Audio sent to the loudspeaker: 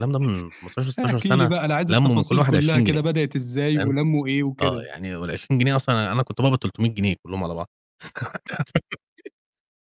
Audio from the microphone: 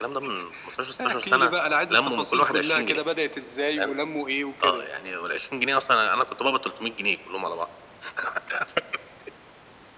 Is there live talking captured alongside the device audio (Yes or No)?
No